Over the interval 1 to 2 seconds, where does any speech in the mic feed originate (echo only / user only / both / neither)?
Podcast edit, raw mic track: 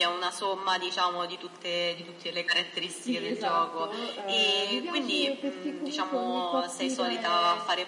echo only